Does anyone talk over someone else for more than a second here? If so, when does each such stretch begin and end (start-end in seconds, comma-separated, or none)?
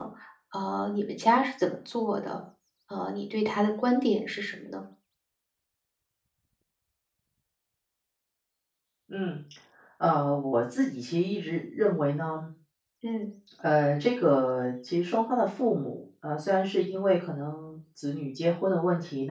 none